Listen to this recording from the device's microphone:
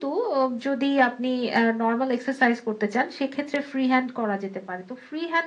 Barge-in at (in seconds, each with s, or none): none